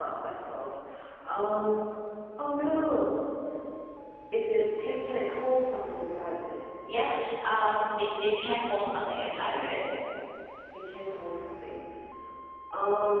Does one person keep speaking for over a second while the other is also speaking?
No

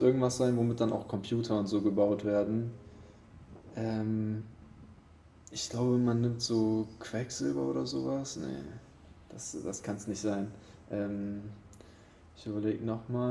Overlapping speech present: No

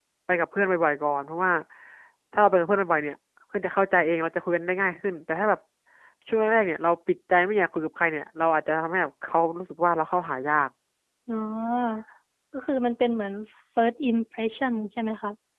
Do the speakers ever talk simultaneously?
No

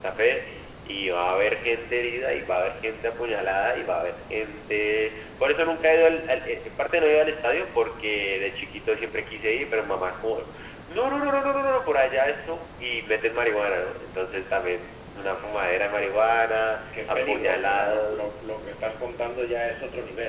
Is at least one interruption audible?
Yes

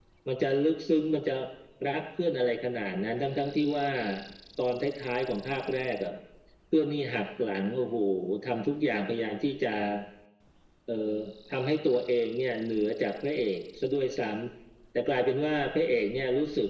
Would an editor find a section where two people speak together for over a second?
No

